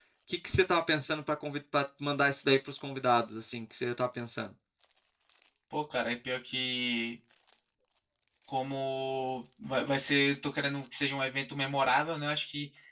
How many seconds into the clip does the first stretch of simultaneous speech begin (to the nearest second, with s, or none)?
none